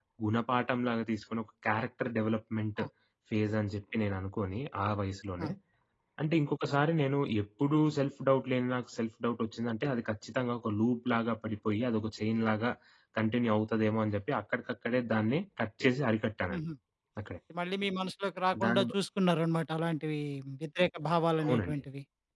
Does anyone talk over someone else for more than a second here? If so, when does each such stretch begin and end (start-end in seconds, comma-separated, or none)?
none